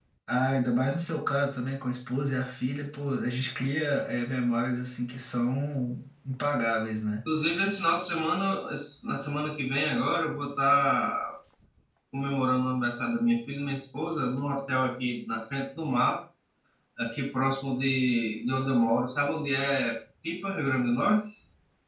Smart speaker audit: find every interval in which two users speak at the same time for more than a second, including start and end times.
none

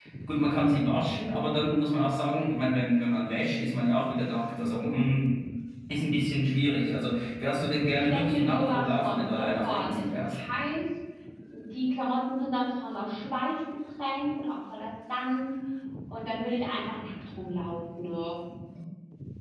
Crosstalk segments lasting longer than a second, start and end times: 7.9-10.3

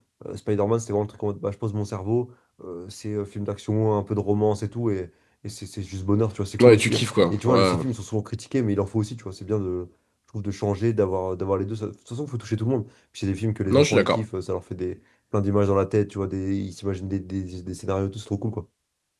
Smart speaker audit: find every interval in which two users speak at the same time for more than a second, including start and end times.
6.6-7.8

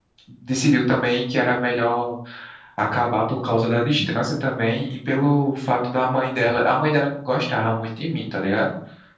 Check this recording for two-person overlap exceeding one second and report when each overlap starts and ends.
none

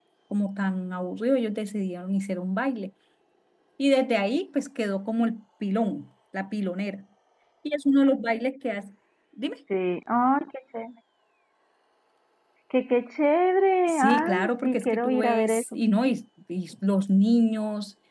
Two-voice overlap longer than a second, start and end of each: 13.9-15.8

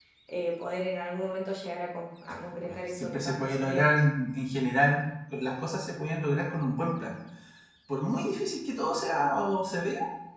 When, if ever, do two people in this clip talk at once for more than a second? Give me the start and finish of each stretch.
2.6-4.0

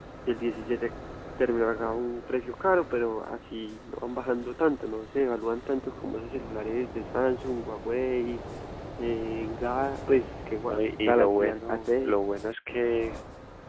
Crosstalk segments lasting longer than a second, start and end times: 10.7-12.2

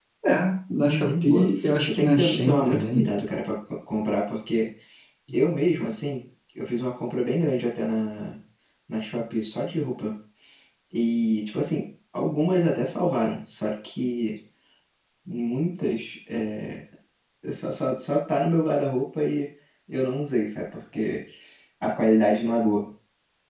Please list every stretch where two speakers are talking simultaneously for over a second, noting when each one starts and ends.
0.9-3.0

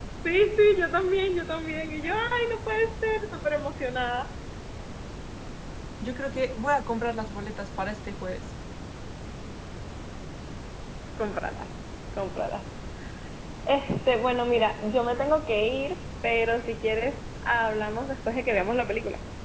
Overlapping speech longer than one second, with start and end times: none

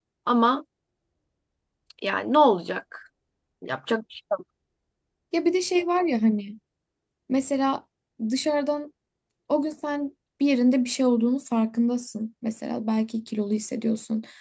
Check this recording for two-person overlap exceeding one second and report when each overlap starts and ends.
none

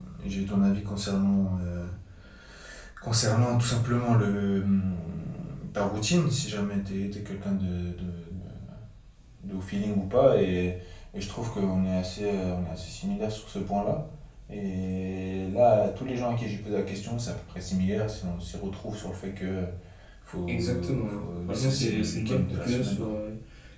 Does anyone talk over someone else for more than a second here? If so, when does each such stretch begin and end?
20.5-23.1

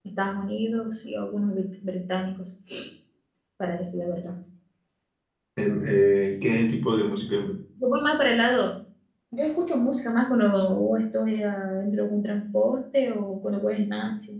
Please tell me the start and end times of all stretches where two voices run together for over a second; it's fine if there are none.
none

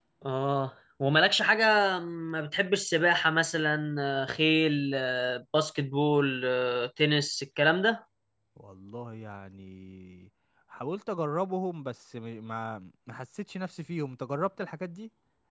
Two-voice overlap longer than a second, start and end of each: none

